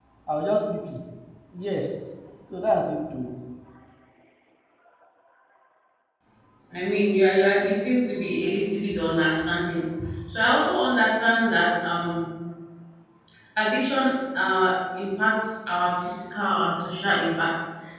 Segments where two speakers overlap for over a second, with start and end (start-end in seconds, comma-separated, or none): none